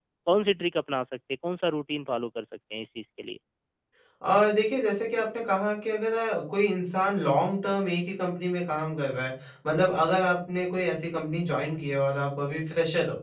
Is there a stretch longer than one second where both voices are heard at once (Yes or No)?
No